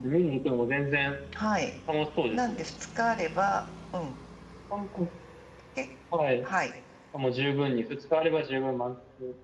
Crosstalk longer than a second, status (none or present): none